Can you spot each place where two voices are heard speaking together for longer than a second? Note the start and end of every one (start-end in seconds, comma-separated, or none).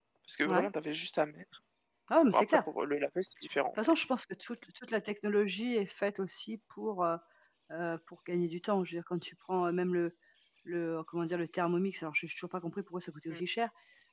none